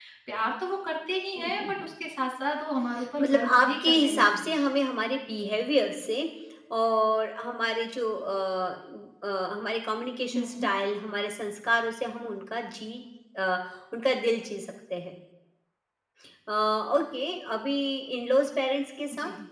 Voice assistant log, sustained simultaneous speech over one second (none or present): present